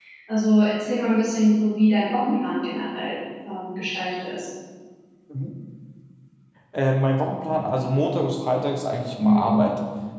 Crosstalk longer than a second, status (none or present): none